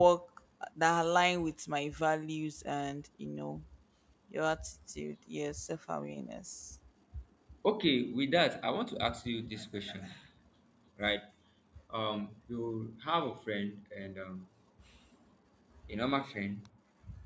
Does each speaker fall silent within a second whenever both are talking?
Yes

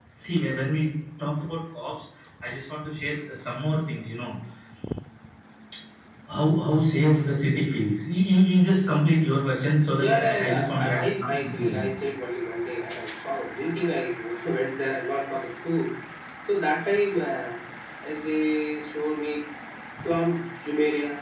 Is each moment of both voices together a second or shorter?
No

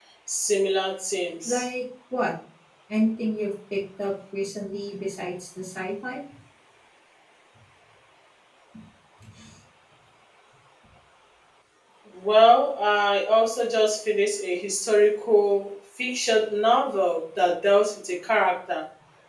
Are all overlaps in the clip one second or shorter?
Yes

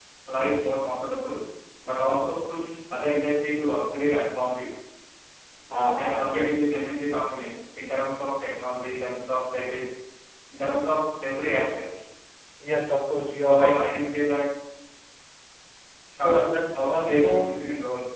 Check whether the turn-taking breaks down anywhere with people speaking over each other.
Yes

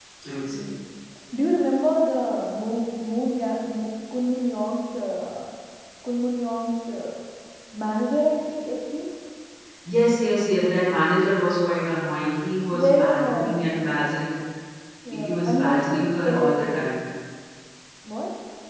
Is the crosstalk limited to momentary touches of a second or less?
No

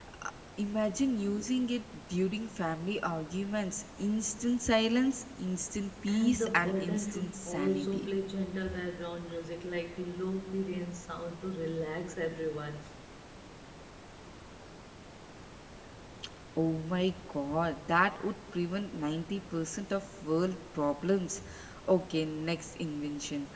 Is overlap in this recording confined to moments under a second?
No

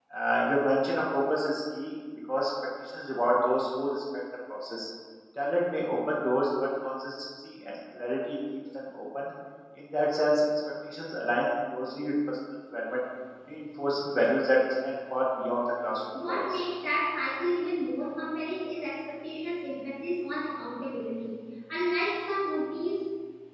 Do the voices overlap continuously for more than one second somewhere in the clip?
No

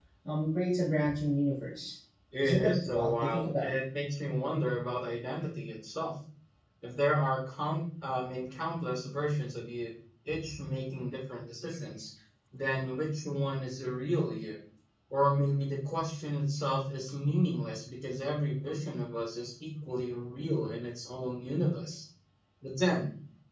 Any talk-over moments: Yes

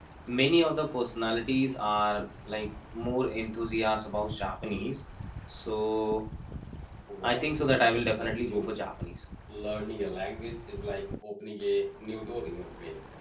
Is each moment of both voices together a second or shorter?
No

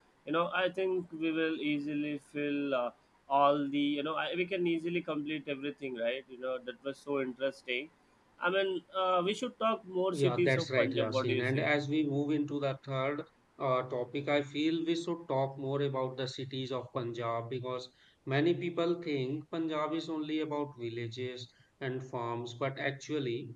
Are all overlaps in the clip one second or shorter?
No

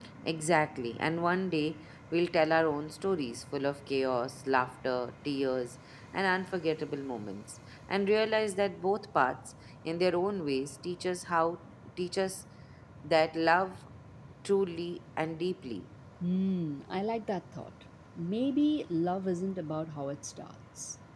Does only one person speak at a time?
Yes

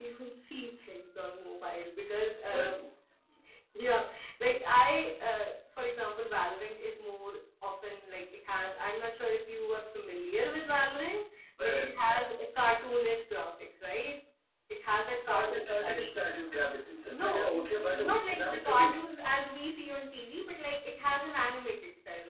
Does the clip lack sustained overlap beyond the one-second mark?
No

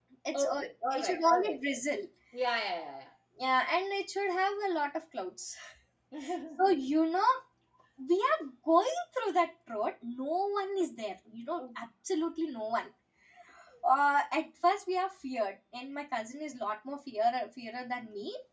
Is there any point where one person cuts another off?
Yes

